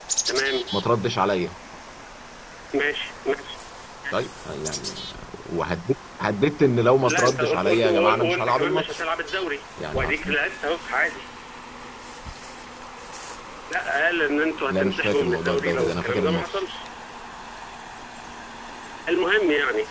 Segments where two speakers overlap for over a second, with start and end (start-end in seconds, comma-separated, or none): 7.0-9.0, 14.7-16.6